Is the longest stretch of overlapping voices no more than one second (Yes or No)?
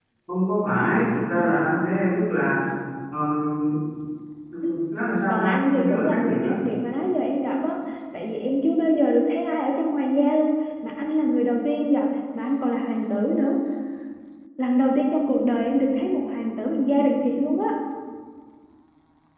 No